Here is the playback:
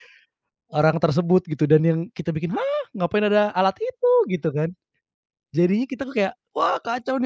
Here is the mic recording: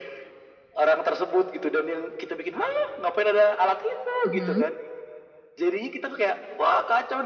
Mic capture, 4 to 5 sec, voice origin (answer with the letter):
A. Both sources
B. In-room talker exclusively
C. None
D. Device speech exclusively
A